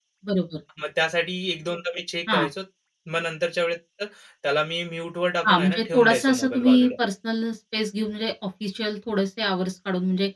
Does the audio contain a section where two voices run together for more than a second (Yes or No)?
Yes